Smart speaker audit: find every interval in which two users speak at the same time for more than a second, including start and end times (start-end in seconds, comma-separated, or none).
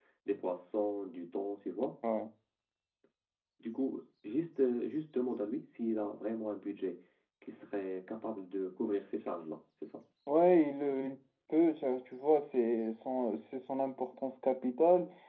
none